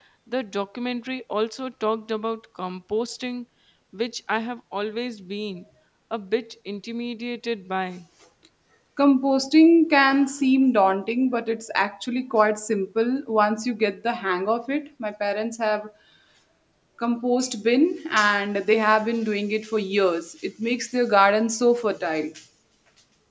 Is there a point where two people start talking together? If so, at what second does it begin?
none

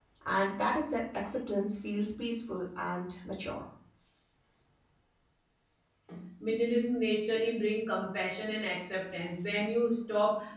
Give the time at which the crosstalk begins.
none

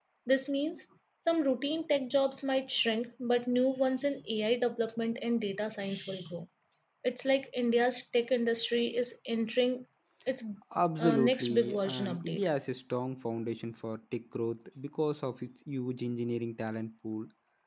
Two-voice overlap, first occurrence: 11.0 s

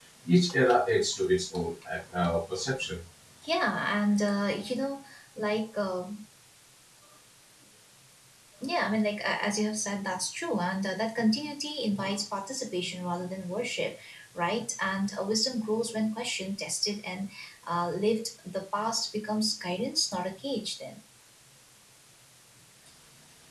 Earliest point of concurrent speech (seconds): none

